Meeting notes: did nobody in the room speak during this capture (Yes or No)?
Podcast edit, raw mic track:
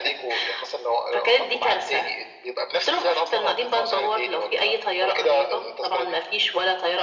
Yes